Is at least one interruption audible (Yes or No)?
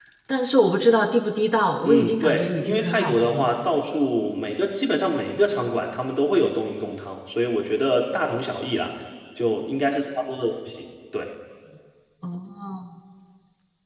Yes